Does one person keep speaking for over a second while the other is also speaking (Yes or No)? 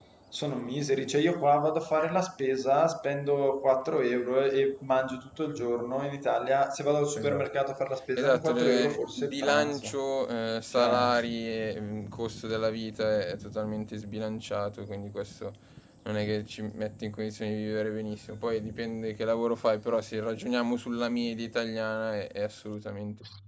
Yes